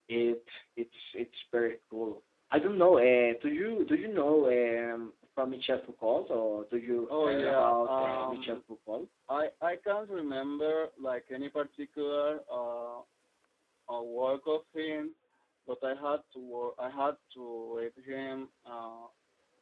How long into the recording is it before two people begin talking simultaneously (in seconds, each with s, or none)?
7.1 s